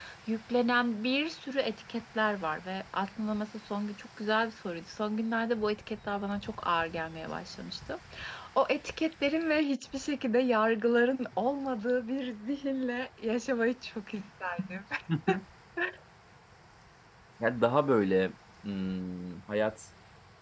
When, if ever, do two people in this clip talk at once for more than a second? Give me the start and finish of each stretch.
none

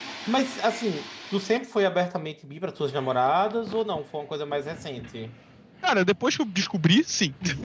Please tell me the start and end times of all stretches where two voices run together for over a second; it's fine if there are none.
none

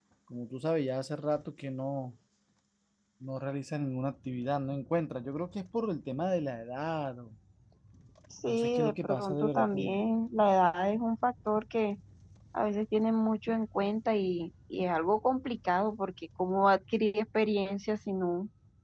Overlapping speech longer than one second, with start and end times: 8.5-10.0

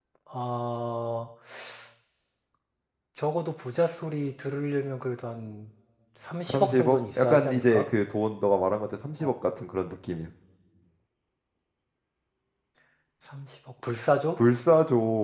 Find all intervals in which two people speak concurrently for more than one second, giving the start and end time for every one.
6.5-7.8

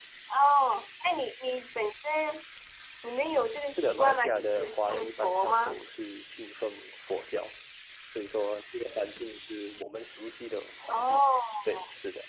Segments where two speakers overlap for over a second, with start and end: 3.7-5.8

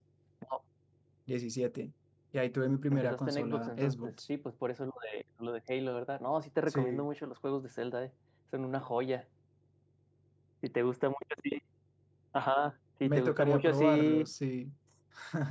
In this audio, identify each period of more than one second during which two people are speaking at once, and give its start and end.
2.9-4.1, 13.0-14.3

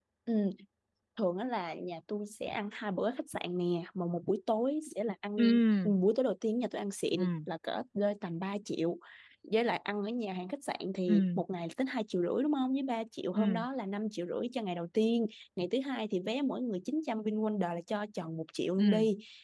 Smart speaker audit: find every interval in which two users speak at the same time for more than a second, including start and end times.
none

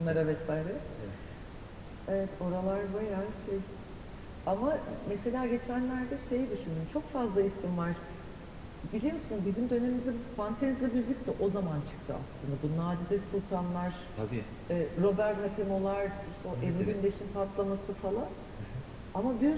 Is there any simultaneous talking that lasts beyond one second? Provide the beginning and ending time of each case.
none

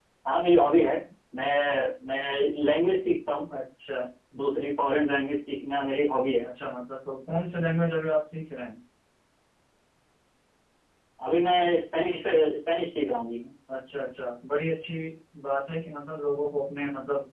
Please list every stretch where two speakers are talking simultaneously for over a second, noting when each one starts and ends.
none

